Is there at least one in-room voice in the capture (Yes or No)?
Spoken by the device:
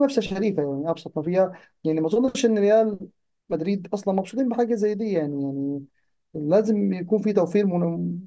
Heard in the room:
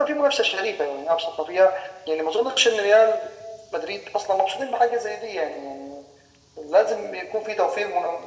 No